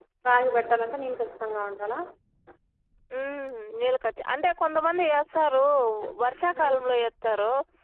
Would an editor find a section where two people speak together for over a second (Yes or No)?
No